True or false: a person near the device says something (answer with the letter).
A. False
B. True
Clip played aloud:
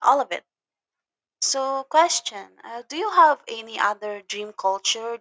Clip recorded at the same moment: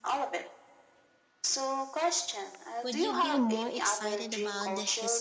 B